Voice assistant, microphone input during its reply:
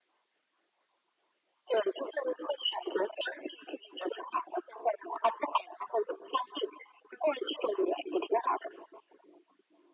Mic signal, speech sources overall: echo only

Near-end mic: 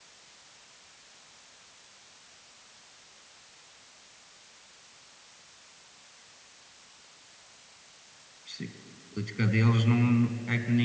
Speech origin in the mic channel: user only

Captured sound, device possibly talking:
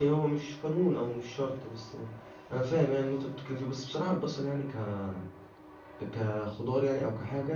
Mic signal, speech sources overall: user only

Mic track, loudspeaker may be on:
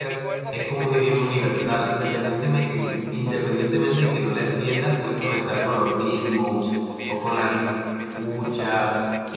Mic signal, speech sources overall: both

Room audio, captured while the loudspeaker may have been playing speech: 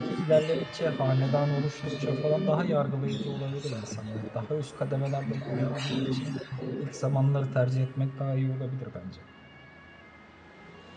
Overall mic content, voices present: both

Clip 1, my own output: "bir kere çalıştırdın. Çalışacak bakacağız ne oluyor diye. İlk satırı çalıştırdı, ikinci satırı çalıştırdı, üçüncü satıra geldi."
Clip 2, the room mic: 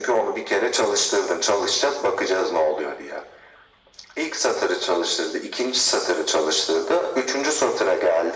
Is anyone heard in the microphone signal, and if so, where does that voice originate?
echo only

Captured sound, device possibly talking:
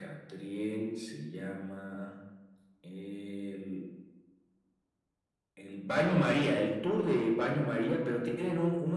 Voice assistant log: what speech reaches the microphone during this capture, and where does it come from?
echo only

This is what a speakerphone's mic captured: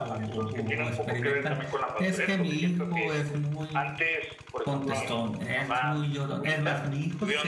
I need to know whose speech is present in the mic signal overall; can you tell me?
both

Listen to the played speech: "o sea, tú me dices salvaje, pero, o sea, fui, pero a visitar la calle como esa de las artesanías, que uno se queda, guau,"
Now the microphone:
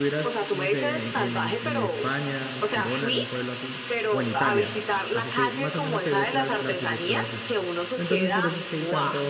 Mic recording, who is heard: both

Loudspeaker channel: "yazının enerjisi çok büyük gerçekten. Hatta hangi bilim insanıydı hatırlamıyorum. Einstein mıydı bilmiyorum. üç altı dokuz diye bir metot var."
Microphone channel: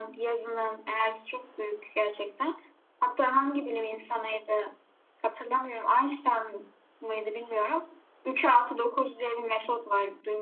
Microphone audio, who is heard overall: echo only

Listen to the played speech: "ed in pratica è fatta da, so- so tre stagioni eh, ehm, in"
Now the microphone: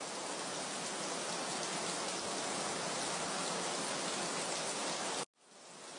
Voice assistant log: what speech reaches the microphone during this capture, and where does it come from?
neither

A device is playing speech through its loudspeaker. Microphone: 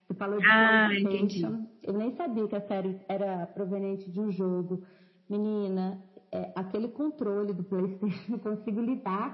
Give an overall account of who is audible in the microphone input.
both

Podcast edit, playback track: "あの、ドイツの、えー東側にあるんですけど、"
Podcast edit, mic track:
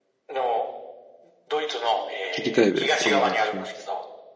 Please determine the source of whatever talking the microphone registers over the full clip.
both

